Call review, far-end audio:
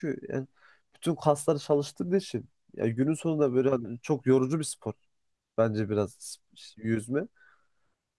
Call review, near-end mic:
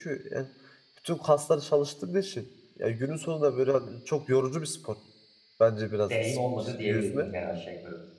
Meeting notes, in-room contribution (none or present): present